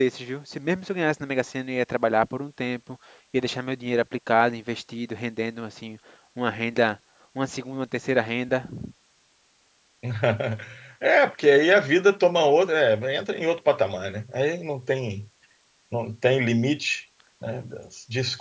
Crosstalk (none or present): none